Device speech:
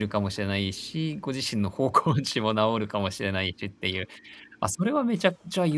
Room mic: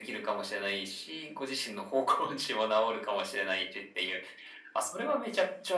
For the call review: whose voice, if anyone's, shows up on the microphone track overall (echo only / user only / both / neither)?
echo only